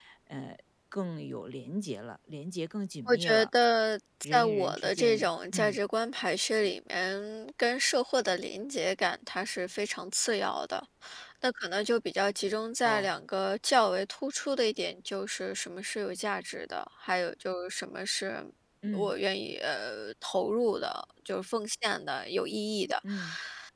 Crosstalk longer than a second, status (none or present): present